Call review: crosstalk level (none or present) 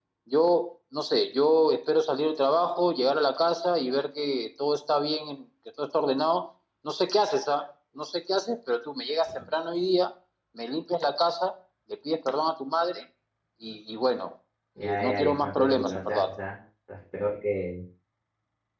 present